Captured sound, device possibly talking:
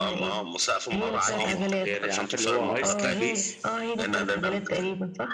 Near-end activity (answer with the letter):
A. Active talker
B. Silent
A